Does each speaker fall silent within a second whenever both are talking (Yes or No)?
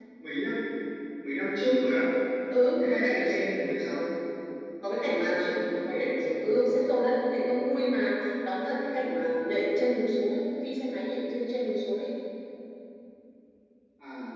No